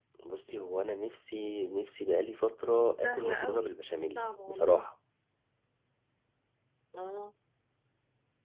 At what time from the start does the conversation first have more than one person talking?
3 s

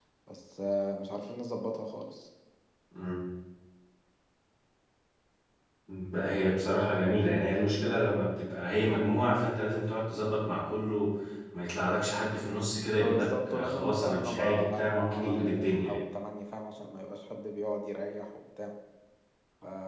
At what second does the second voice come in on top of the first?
13 s

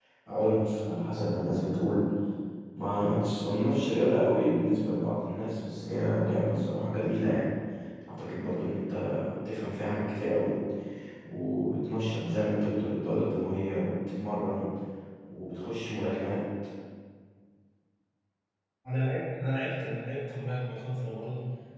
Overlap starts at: none

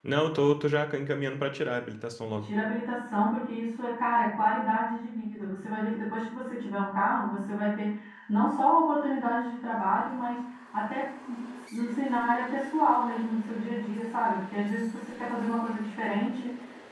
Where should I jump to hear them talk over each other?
none

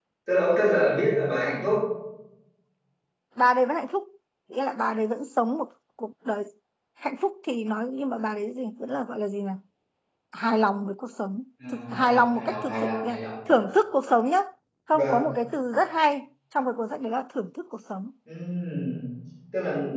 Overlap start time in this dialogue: 12 s

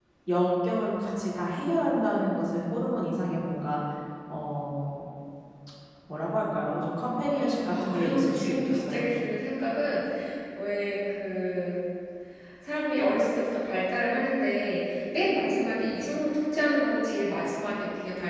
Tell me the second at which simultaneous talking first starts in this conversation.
7 s

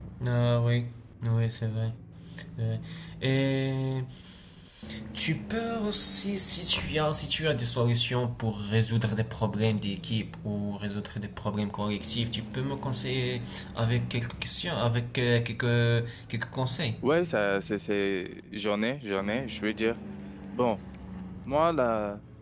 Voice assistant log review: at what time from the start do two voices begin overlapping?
none

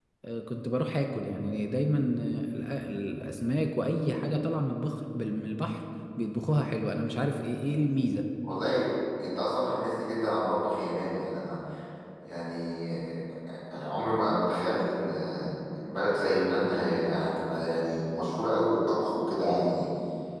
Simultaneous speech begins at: none

